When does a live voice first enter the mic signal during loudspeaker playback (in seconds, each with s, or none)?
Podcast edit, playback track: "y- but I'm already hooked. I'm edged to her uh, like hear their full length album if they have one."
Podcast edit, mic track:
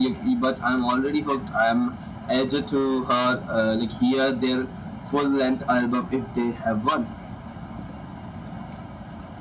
none